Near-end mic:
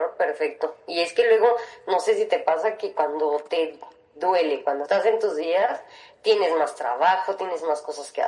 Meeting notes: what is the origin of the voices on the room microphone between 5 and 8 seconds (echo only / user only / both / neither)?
echo only